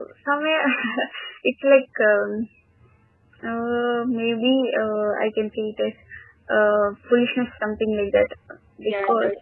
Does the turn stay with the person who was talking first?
No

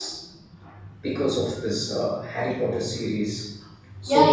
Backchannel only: No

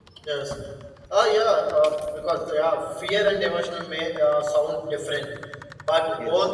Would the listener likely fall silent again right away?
Yes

